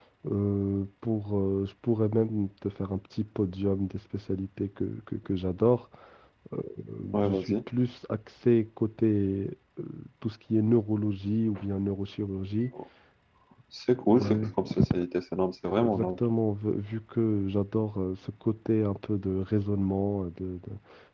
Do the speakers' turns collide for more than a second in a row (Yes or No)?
No